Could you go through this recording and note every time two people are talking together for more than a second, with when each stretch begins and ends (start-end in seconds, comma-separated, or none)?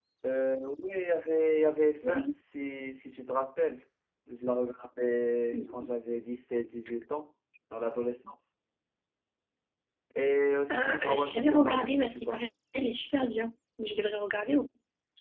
10.7-12.4